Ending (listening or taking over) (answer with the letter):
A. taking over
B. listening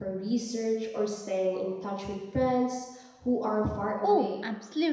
A